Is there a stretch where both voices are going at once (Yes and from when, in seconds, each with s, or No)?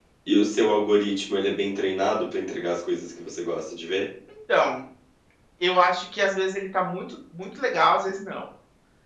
No